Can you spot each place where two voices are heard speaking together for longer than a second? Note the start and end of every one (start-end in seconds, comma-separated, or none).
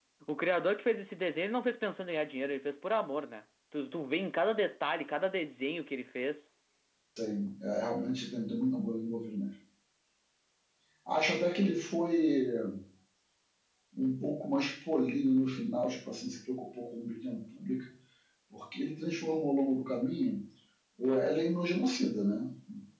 none